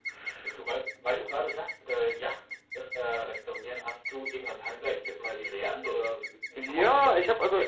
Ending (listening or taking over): taking over